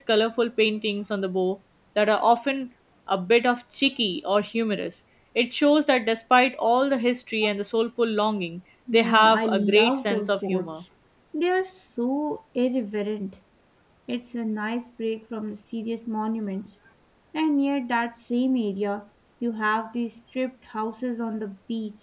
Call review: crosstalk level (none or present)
present